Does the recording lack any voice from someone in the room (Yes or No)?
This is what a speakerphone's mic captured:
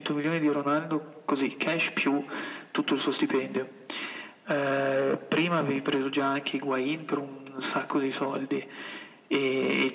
Yes